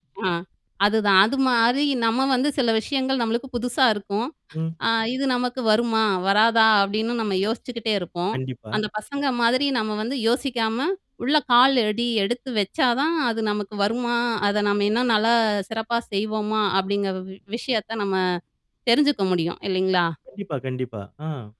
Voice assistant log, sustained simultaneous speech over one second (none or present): none